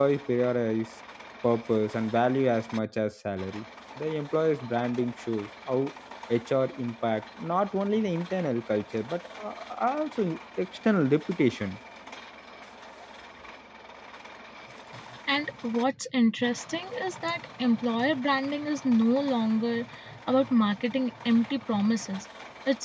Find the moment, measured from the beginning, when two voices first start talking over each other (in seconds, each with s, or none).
none